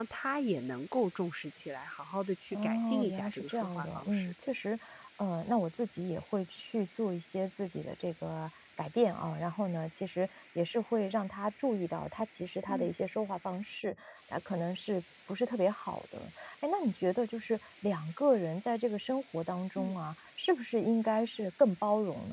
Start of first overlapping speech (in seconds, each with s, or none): 2.5 s